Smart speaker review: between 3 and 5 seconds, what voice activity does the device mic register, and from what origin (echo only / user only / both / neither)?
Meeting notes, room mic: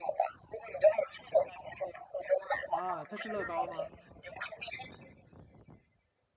both